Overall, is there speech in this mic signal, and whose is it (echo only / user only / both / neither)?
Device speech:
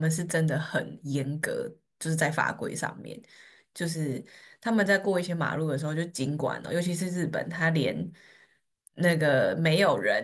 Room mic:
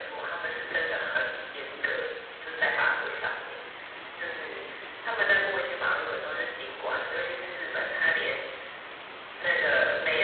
echo only